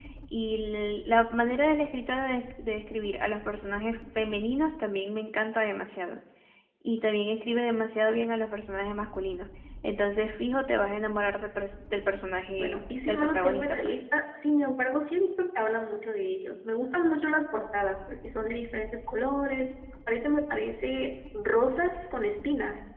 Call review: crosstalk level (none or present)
present